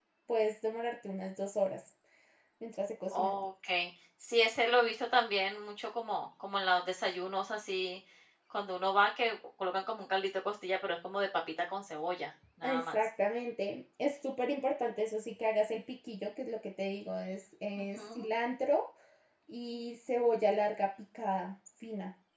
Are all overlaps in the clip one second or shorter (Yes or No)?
Yes